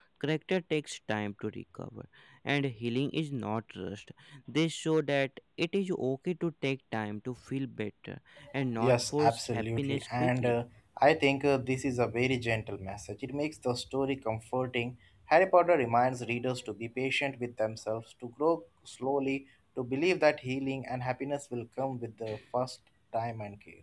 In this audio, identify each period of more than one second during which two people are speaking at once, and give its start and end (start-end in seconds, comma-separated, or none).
8.8-10.5